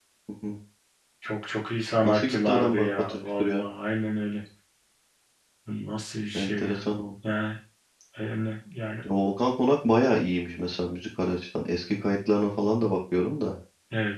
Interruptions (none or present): present